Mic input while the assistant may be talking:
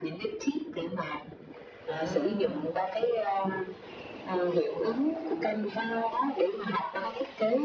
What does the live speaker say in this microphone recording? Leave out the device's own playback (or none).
À.